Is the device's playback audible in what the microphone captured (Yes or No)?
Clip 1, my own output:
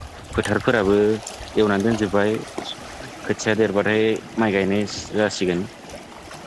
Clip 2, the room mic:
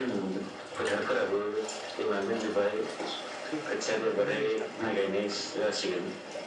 Yes